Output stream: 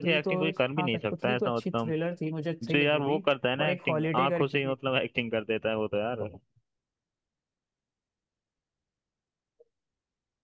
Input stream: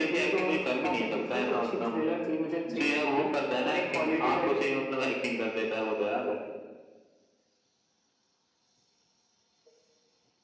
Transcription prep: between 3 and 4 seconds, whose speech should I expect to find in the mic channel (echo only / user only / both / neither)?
echo only